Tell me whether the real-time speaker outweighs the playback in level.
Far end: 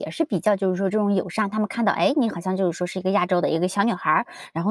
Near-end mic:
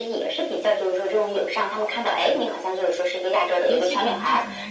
No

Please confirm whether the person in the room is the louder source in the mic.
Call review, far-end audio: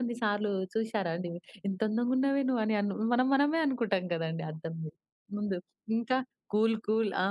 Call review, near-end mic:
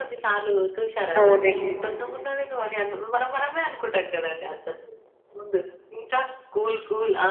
Yes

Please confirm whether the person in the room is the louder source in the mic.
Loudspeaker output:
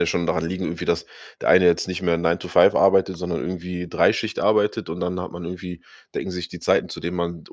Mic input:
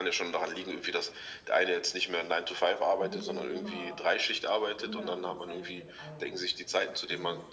No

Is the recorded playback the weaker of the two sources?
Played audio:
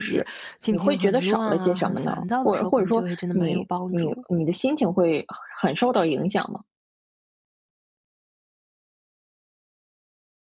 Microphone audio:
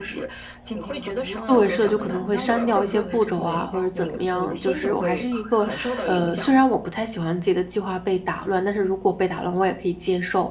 Yes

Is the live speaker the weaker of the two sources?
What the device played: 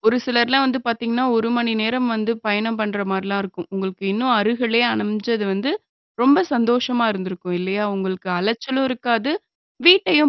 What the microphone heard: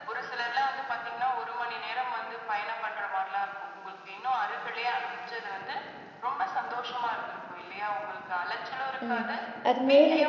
No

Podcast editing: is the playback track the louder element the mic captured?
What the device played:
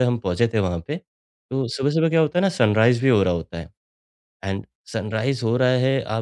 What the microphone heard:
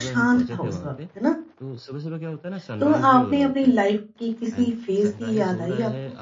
No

